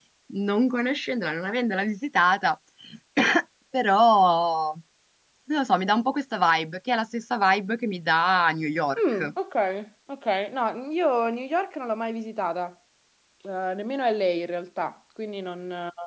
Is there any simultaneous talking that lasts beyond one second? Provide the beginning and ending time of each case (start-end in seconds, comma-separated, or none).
none